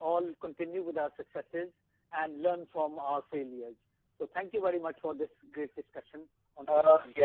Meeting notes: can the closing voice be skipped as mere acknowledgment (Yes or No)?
No